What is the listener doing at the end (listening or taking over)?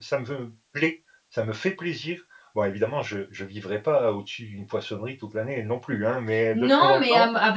taking over